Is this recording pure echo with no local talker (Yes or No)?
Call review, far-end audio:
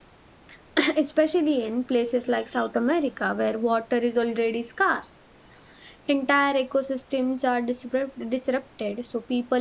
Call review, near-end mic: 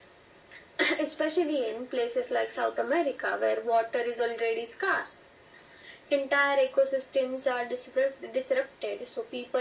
Yes